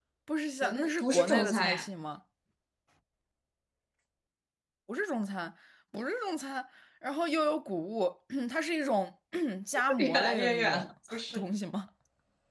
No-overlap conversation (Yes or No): No